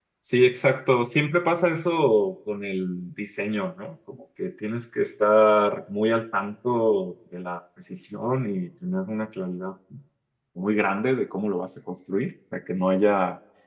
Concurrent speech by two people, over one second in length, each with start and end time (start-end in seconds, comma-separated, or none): none